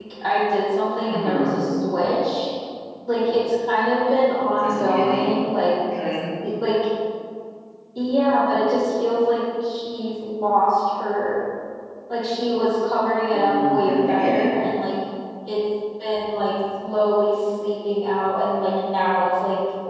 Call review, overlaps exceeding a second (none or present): present